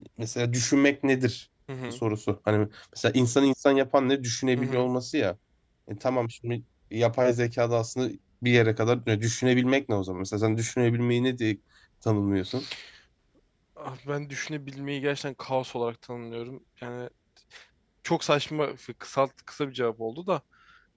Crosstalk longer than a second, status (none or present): none